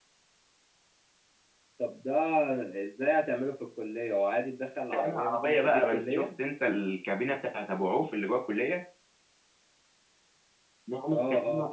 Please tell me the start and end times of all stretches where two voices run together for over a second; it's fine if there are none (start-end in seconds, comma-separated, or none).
4.9-6.2